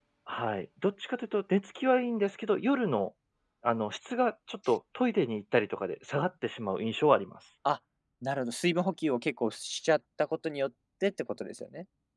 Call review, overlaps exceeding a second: none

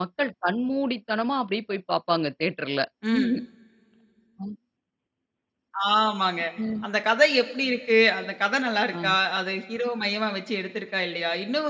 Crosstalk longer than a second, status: none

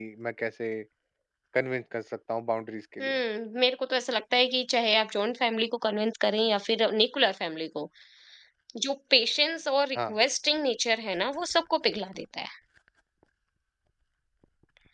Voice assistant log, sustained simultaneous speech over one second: none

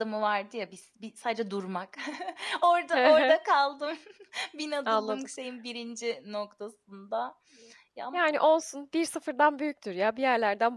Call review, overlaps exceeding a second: none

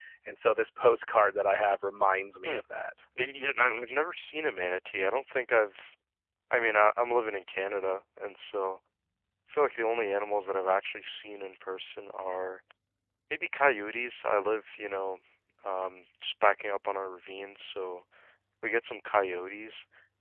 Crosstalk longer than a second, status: none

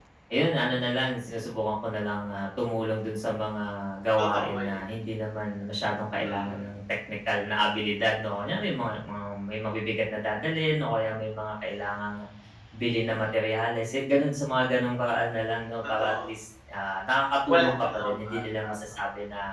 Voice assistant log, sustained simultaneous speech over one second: present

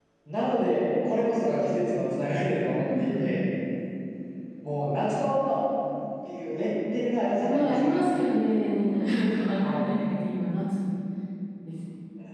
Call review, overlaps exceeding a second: none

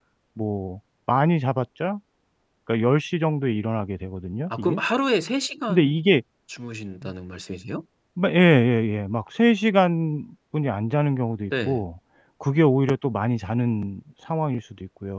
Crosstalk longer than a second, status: none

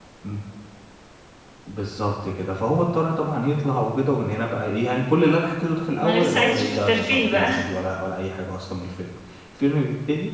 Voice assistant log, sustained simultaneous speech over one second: present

